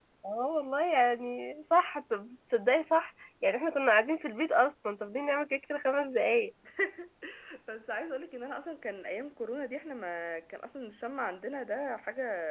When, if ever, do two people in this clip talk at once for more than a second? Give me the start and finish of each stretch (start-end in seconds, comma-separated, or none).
none